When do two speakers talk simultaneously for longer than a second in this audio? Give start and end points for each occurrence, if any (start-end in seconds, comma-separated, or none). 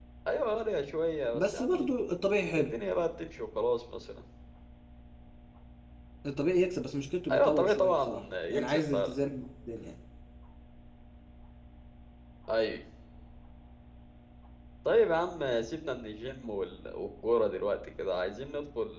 7.3-9.1